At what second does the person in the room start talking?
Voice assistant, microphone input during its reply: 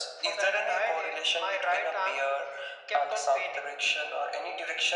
none

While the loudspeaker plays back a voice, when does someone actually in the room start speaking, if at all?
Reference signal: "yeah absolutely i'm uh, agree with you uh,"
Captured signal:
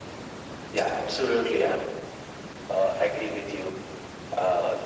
none

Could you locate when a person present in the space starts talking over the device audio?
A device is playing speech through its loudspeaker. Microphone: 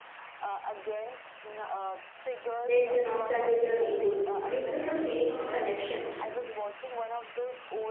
2.7 s

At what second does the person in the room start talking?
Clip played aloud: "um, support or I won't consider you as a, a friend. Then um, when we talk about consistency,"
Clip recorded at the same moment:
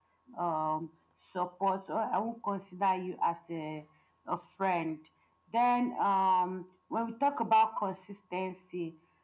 none

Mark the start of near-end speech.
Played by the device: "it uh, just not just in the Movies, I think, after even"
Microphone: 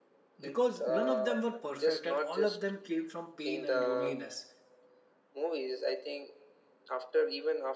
0.4 s

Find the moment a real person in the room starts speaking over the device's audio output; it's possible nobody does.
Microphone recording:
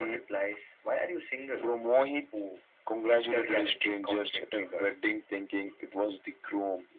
none

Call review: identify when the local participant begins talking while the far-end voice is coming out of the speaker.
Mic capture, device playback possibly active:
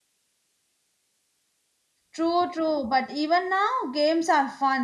2.1 s

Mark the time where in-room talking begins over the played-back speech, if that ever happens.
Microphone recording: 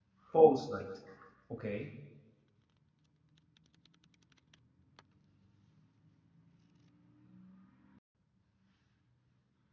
0.3 s

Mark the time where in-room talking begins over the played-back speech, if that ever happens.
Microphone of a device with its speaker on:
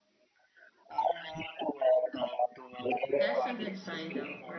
3.1 s

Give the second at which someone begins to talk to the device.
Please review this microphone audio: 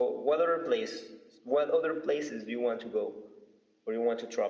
none

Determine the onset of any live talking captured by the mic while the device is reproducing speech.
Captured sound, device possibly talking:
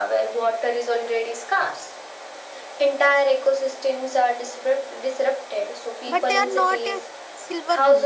6.0 s

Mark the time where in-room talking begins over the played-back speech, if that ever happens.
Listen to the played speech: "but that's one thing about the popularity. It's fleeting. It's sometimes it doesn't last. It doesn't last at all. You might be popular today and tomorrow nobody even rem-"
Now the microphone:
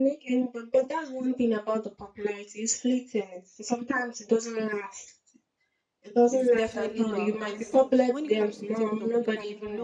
6.3 s

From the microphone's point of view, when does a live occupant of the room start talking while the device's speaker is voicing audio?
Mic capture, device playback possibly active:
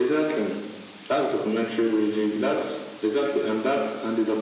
none

